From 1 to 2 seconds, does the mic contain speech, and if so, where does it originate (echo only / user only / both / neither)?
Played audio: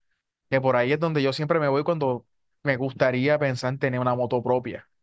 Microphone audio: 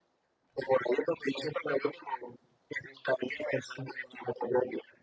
echo only